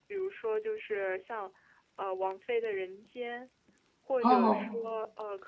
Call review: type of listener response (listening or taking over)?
listening